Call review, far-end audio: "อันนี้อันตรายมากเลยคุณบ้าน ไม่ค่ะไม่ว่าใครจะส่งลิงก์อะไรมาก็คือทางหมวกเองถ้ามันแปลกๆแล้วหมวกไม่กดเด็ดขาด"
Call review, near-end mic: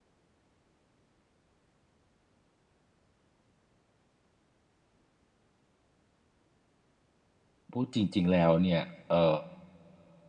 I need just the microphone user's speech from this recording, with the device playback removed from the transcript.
พูดจริงๆแล้วเนี่ยเอ่

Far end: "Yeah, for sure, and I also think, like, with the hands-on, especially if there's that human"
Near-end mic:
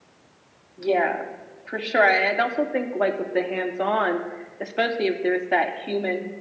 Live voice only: none

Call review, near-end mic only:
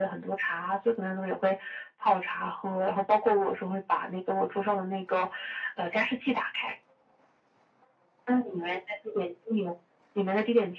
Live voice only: none

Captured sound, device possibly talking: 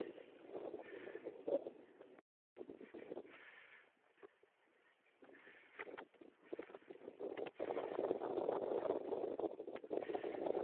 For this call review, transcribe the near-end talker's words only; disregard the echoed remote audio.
none

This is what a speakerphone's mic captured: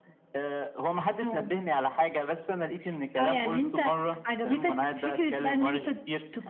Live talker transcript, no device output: none

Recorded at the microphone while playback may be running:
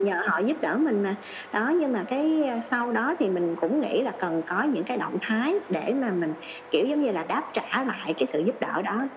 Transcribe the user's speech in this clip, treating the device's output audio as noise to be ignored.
none

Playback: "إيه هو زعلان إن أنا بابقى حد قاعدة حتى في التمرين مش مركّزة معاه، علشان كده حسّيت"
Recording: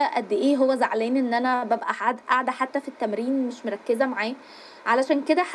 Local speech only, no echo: none

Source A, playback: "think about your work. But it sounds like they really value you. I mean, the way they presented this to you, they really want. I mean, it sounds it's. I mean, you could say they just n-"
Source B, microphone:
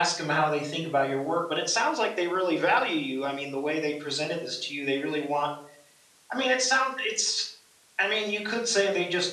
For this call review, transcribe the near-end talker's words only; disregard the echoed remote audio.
none

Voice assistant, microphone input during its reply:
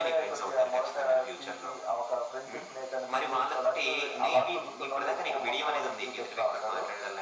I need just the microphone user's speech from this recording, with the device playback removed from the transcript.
none

